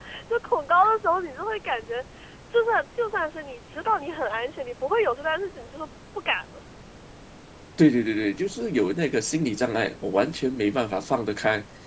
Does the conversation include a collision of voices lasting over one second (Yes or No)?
No